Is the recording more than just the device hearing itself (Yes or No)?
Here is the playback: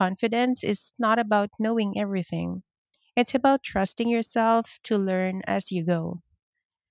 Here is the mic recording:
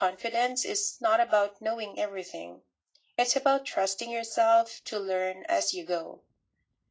No